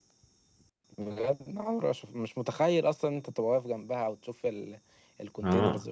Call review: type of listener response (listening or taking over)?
taking over